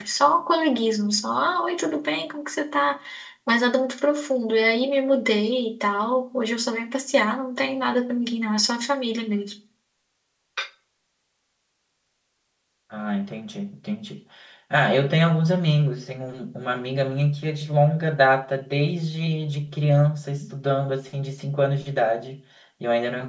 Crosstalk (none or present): none